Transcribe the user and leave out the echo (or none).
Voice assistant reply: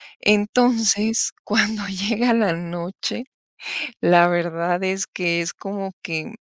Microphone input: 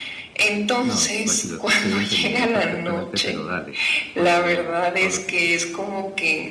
no, tranquilo, te estoy entendiendo perfectamente, pero dale, cuéntame todo lo que quieras.